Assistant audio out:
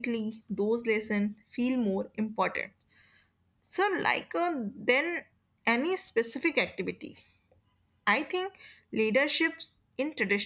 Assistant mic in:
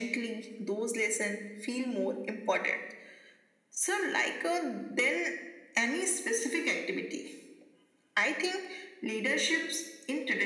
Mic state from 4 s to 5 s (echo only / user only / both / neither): echo only